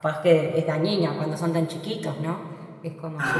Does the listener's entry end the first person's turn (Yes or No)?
Yes